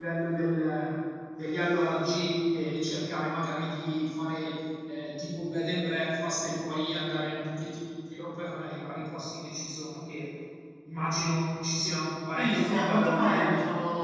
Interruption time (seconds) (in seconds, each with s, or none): 12.3 s